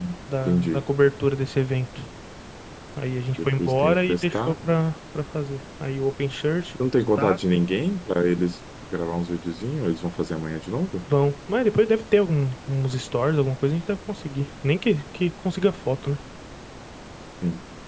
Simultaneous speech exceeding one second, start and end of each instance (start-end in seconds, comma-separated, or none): 3.3-4.6